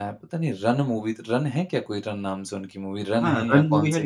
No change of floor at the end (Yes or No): No